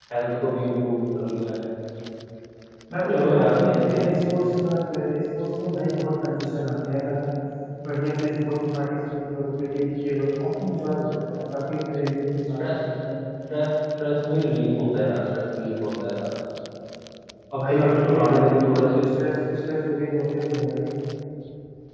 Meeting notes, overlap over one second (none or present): present